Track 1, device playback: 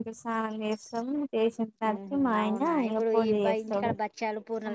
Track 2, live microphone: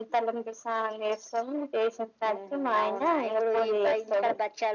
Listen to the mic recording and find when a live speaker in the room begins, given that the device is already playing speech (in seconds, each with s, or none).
none